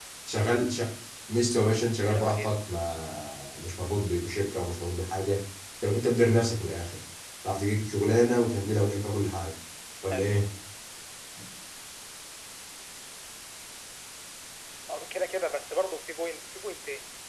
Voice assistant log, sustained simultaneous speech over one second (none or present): none